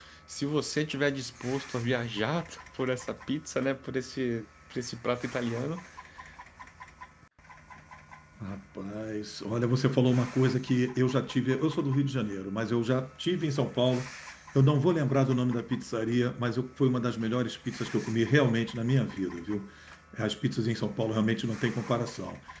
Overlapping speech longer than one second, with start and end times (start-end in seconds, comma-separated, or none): none